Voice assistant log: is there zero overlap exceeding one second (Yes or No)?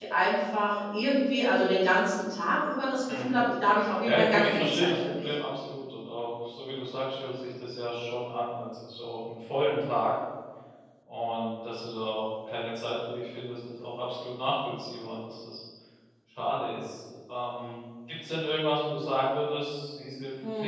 No